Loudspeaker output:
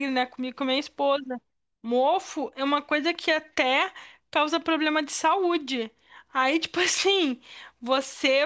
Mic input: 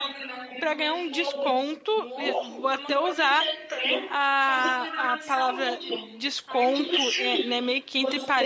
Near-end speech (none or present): present